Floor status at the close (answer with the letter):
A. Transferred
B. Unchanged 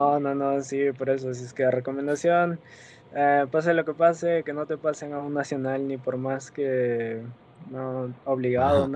A